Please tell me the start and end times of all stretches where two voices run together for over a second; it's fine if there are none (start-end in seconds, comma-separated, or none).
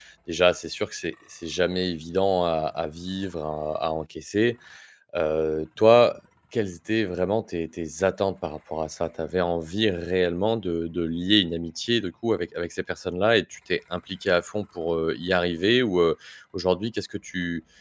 none